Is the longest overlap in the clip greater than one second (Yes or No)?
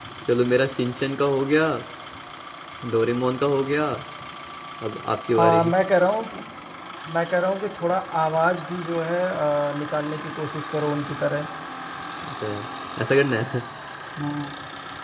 No